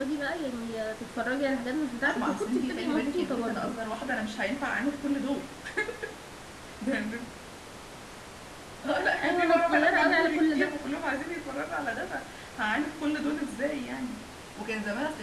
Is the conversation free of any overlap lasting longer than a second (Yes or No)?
No